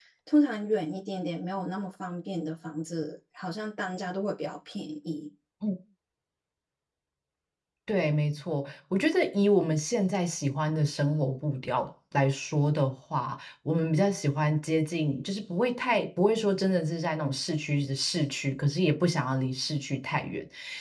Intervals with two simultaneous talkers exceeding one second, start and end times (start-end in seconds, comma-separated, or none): none